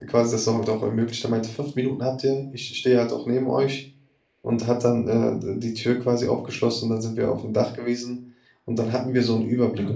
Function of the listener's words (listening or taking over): listening